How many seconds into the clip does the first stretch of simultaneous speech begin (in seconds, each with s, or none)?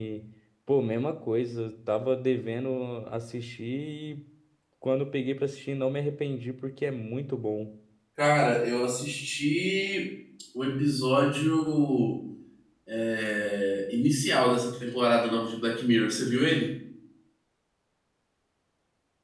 none